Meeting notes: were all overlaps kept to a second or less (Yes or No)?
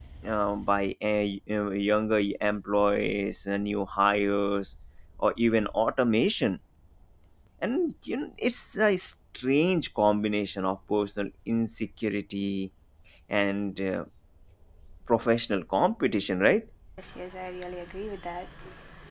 Yes